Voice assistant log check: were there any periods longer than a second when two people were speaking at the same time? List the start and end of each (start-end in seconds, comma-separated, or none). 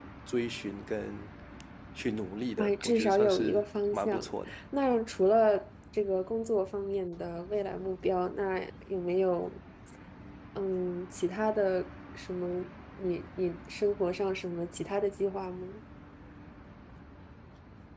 2.6-4.2